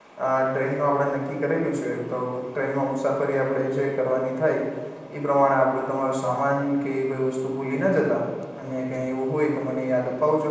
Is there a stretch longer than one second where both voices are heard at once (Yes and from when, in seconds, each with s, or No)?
No